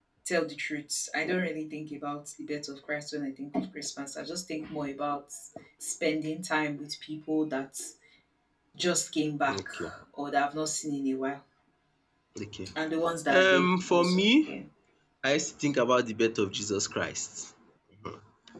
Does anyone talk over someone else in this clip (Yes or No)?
Yes